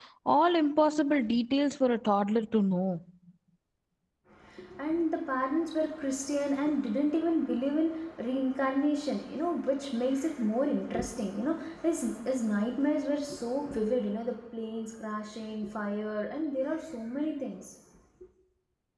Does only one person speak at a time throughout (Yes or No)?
Yes